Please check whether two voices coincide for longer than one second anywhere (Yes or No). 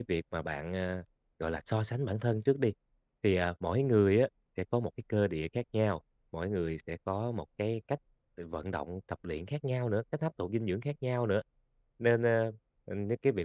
No